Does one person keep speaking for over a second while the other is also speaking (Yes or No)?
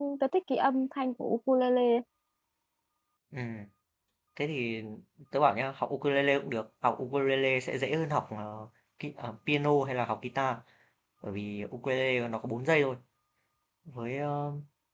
No